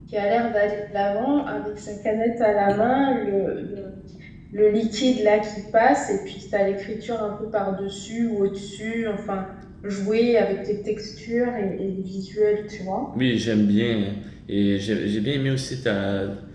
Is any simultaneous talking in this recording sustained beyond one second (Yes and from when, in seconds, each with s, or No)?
No